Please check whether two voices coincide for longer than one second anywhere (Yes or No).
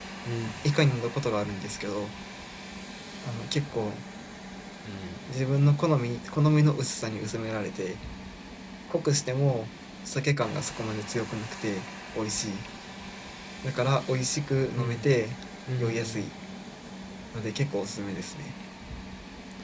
No